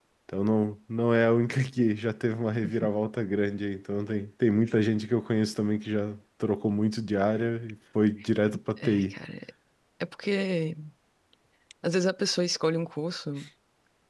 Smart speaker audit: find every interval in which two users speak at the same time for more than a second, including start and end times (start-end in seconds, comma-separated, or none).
none